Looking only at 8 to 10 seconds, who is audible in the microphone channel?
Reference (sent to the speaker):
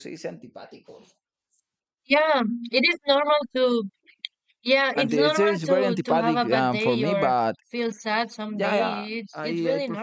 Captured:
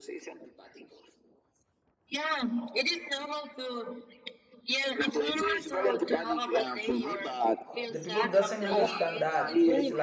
both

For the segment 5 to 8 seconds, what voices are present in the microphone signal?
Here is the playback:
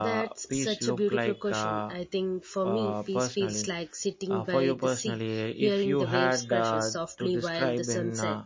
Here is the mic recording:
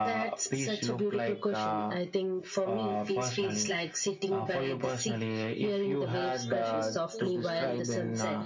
both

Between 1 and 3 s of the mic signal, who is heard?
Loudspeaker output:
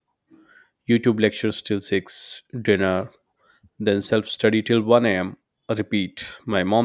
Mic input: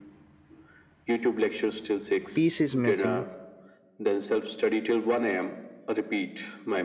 both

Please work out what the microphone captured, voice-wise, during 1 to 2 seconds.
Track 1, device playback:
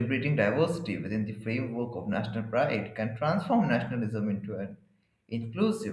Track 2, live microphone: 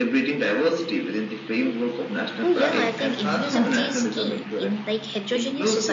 echo only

